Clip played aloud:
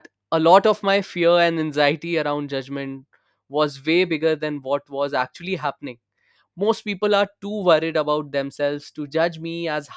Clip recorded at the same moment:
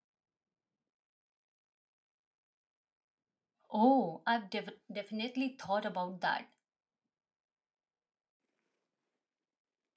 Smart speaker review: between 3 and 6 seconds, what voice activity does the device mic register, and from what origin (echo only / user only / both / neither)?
user only